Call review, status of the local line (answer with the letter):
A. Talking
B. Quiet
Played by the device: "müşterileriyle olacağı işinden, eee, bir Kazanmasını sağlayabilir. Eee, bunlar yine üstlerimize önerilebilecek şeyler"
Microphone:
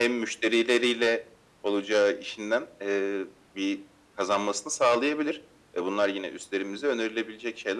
B